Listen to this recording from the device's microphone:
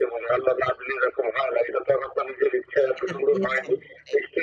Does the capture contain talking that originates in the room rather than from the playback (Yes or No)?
Yes